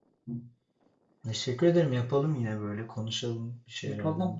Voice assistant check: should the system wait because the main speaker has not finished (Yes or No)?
No